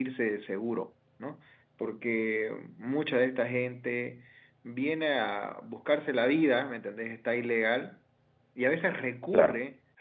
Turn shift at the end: No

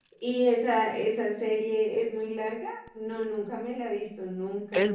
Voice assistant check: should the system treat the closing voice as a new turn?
Yes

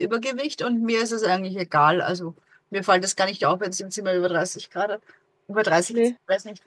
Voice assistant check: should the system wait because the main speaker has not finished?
Yes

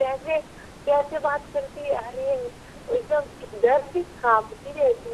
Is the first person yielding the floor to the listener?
Yes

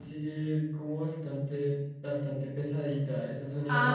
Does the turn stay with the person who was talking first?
No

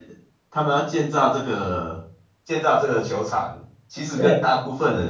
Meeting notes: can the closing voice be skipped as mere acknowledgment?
Yes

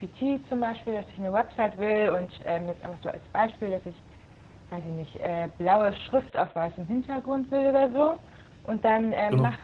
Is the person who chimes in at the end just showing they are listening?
Yes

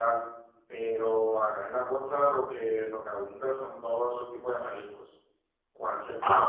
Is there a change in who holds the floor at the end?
No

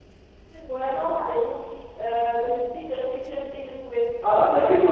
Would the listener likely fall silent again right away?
No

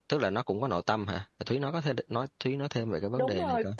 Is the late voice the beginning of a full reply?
Yes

